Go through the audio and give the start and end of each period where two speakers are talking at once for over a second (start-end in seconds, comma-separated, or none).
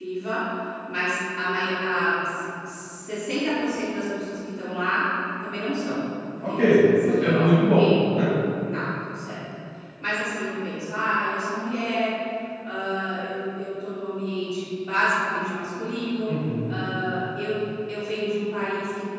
6.5-7.9